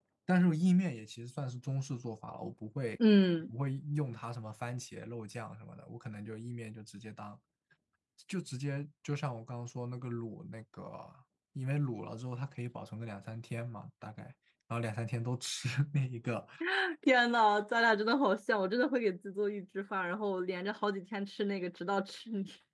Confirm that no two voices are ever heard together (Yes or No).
Yes